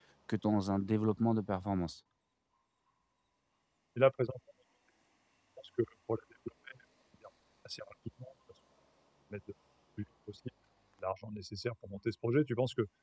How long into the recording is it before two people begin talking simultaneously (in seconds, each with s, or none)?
none